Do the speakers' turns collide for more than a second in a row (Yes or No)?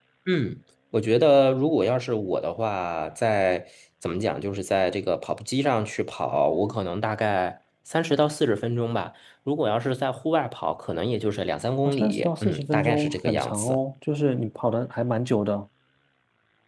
Yes